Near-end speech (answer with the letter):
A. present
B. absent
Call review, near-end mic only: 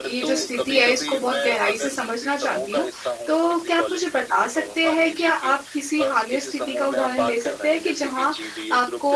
A